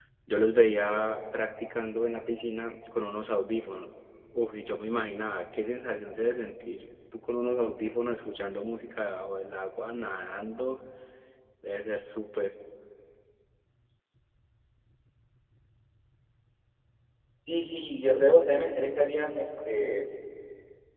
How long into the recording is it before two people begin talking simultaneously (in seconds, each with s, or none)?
none